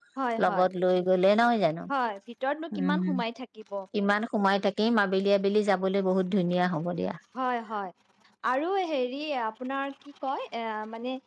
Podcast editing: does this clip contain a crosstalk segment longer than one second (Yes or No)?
No